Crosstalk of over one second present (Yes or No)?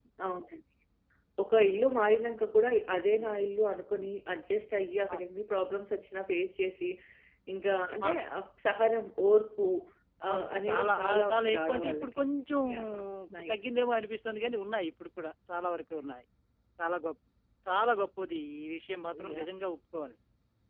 Yes